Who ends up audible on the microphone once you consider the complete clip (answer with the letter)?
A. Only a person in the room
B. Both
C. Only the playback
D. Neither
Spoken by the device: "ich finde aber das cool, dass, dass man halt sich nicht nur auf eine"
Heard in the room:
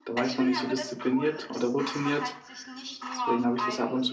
B